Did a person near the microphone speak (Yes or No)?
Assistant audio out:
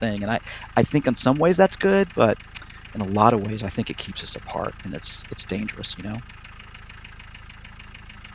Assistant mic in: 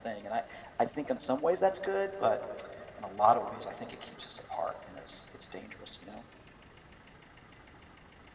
No